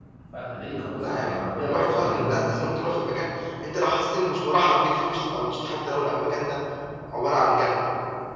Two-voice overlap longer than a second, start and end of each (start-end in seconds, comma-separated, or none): 1.1-2.4